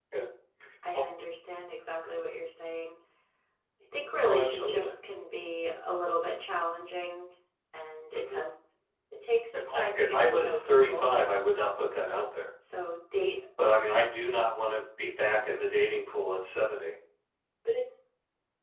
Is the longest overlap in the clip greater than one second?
Yes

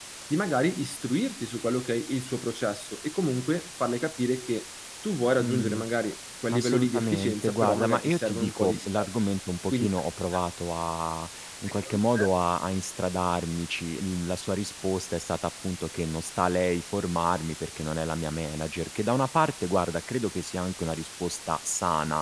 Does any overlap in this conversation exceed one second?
Yes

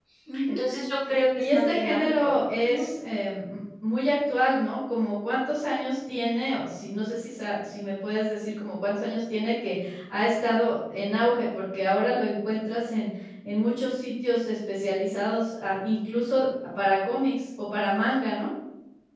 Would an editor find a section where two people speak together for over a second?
Yes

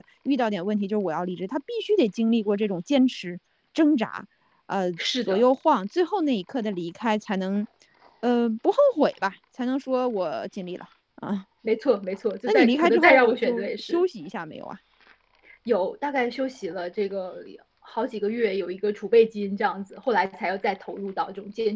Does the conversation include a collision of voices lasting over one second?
Yes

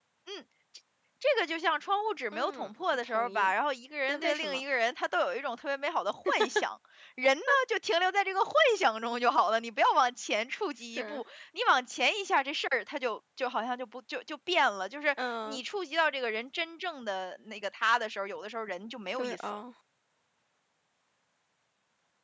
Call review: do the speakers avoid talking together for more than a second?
No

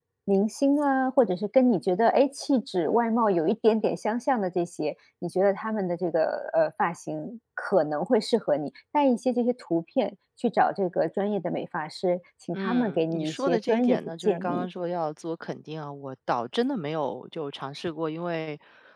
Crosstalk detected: Yes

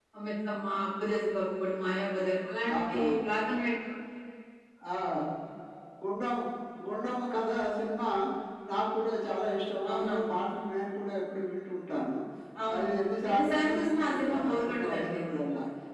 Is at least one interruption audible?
Yes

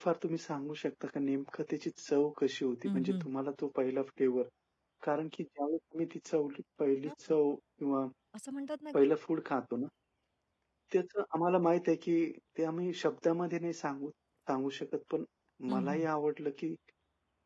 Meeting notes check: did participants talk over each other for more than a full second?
No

